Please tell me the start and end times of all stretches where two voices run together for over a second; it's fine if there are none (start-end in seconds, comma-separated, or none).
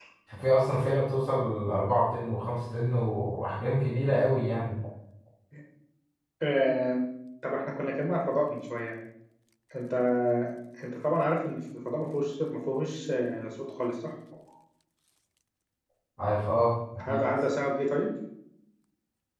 none